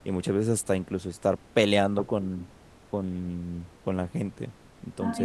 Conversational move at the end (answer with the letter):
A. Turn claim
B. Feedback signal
A